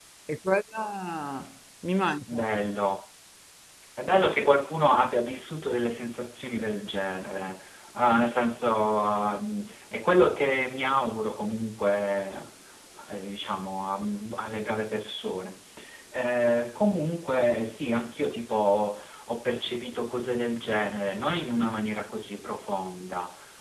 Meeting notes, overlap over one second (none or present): none